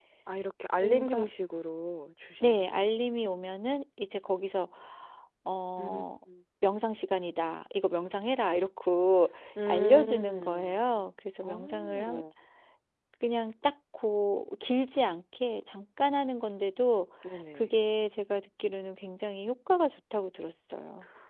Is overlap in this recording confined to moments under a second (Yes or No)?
No